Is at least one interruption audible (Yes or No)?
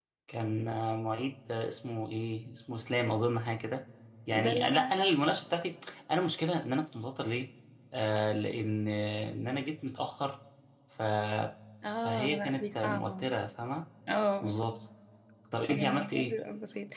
Yes